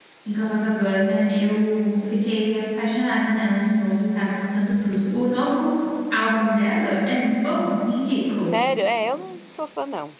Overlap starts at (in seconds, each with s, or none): none